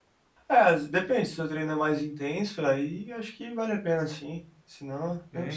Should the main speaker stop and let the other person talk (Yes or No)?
Yes